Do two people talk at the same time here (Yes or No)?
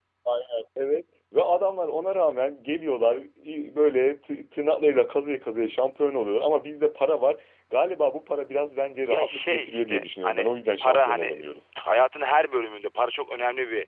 Yes